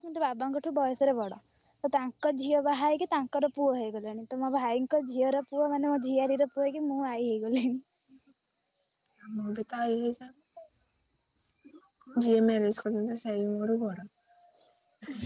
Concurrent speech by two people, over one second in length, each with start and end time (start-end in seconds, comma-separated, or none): none